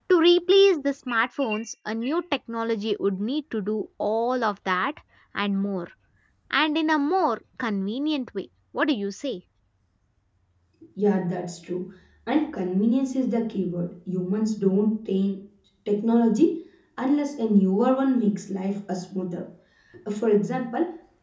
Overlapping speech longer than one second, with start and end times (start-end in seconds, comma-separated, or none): none